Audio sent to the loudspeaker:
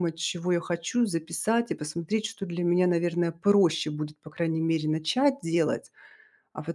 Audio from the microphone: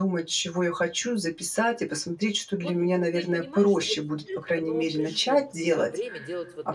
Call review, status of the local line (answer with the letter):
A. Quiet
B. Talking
B